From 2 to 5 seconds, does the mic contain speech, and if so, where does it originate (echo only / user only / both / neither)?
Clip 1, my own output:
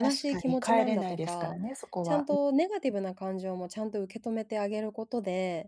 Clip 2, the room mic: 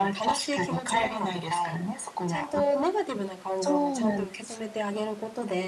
both